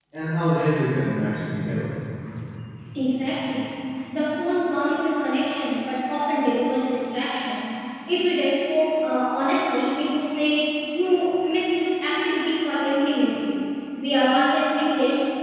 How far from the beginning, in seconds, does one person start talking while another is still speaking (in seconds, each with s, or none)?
none